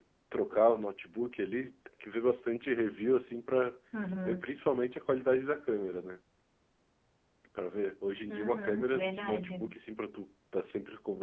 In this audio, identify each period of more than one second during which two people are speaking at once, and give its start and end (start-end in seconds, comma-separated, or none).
8.3-9.6